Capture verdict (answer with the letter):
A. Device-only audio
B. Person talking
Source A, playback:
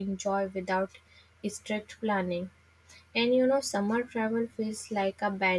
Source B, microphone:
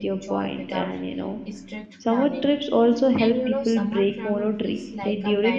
B